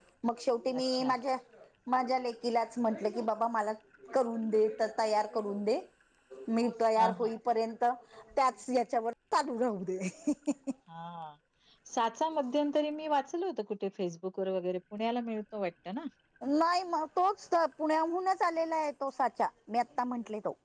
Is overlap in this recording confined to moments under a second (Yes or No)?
Yes